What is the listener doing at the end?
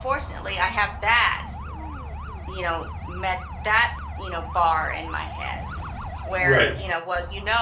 listening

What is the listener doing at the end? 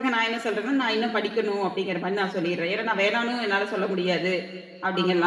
listening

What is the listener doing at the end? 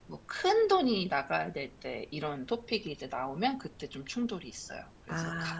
taking over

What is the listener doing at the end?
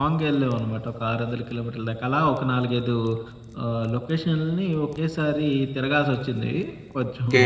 taking over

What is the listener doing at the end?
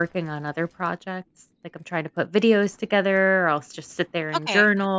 listening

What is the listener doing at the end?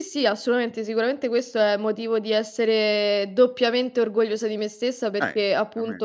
listening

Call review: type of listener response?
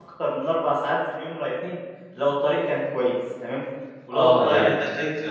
taking over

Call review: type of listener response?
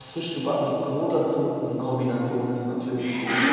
taking over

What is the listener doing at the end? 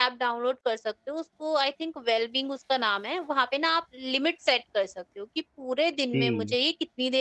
listening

